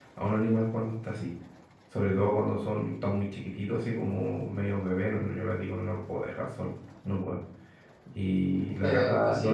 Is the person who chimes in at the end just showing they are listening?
Yes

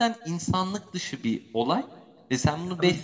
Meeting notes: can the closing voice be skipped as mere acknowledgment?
Yes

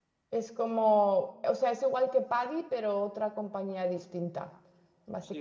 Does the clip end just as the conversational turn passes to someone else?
Yes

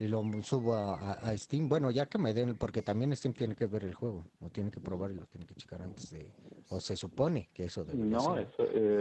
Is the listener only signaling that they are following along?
No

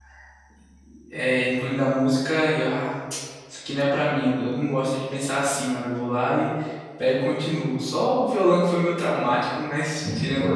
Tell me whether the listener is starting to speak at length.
Yes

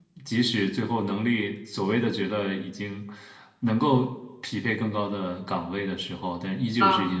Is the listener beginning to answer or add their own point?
No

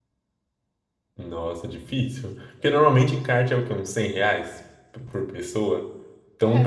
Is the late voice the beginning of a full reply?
No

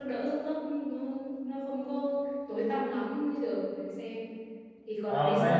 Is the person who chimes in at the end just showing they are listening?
No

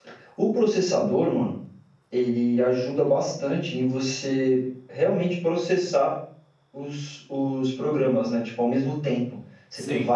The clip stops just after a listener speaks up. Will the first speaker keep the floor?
Yes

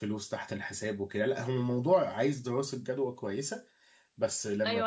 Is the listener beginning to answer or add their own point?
Yes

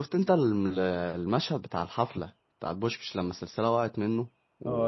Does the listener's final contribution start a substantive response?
Yes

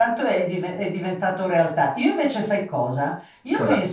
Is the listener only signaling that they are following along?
Yes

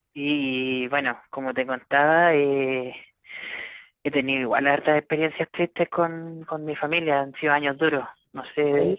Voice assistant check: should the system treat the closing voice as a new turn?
Yes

